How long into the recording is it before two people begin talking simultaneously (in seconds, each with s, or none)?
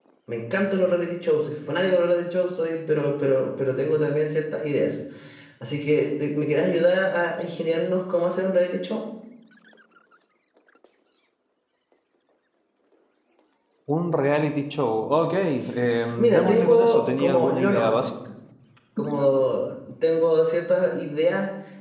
16.0 s